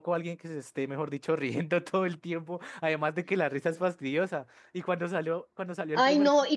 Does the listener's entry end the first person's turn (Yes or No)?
Yes